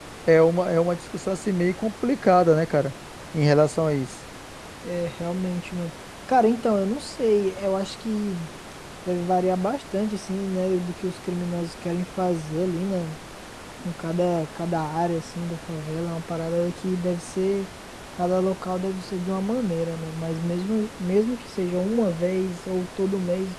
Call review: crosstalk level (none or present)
none